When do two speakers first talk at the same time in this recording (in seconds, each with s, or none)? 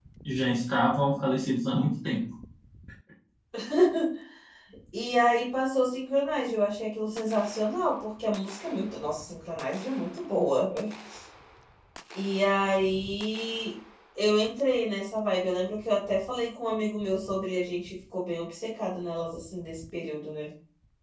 none